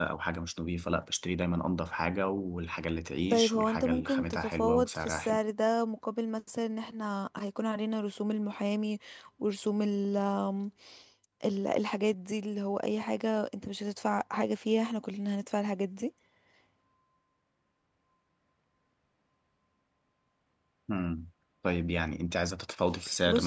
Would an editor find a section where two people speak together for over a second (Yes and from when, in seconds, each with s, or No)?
Yes, from 3.3 s